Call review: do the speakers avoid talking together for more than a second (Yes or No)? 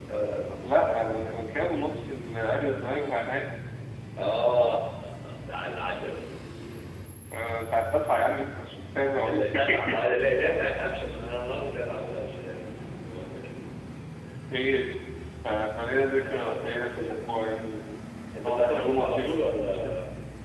No